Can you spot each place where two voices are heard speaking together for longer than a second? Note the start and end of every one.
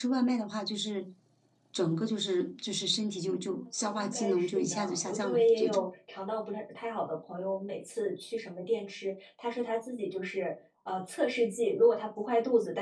3.8-5.8

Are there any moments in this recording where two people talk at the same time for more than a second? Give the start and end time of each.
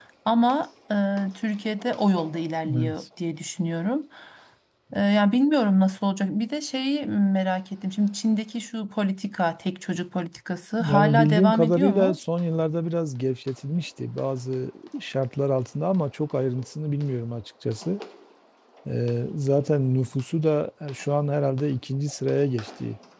10.8-12.2

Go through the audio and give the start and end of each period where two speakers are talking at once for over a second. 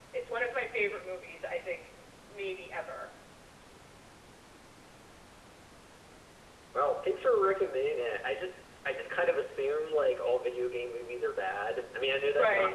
none

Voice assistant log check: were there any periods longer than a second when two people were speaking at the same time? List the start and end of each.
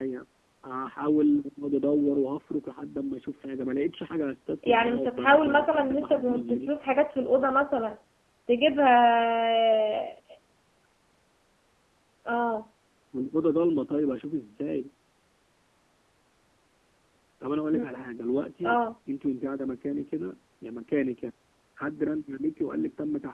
4.6-6.7

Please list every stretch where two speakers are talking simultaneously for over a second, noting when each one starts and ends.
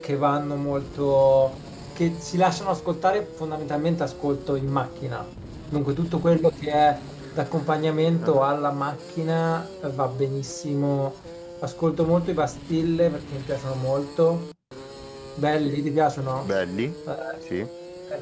none

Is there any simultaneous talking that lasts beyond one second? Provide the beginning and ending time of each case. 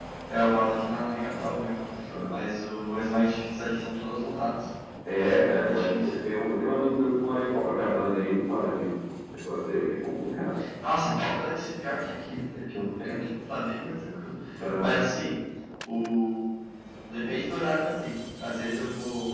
none

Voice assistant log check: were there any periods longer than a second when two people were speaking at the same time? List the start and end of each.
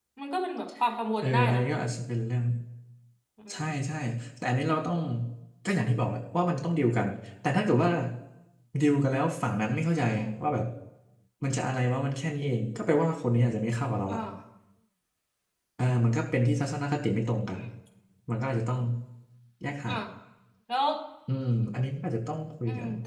none

